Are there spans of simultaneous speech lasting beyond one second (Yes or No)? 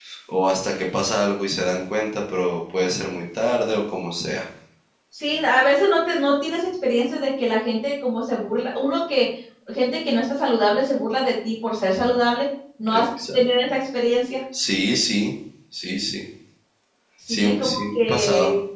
Yes